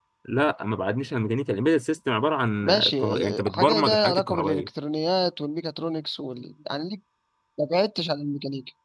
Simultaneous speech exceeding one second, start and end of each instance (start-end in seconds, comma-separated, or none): 2.6-4.7